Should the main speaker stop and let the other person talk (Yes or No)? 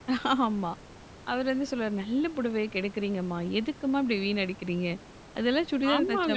Yes